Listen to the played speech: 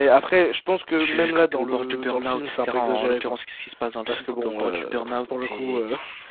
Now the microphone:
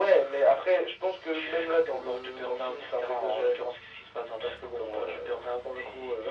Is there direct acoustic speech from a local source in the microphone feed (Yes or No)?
No